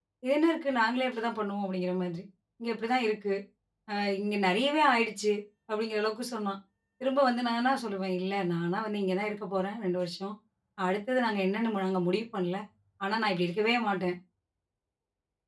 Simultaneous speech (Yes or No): No